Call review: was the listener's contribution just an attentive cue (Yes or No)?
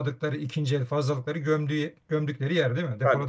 No